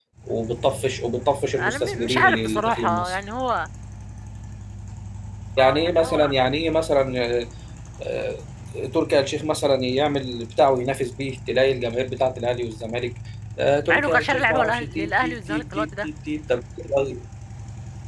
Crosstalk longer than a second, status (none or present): present